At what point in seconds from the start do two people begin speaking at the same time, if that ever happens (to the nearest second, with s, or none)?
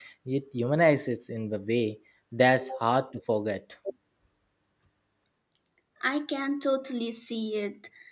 none